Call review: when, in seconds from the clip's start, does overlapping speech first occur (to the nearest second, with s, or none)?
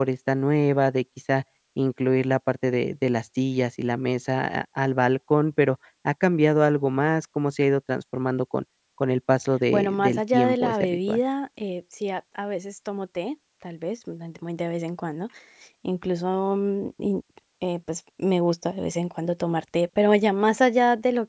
10 s